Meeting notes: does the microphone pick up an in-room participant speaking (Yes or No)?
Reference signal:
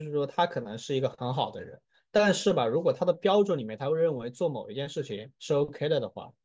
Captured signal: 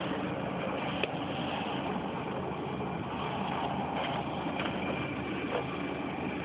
No